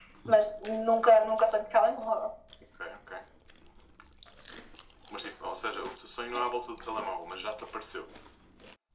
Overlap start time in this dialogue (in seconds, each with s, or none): none